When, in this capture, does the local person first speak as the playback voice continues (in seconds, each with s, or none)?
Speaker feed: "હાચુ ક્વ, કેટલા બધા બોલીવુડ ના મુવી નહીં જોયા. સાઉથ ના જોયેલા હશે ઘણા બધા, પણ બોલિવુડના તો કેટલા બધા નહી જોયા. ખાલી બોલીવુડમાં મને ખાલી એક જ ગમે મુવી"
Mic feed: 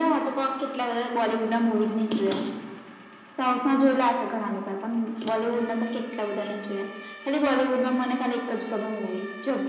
none